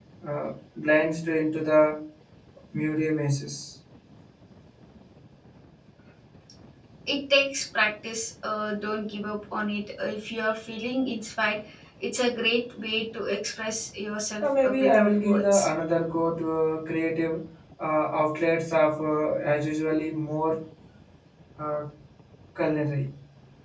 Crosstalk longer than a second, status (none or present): present